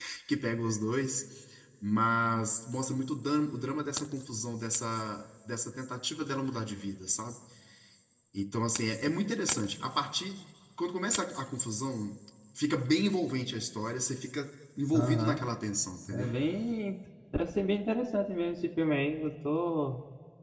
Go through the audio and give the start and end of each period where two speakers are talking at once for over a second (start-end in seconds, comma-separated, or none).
none